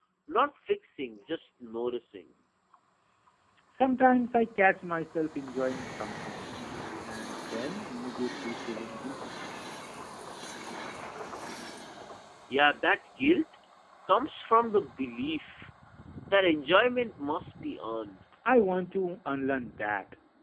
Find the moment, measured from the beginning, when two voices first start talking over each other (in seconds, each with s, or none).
none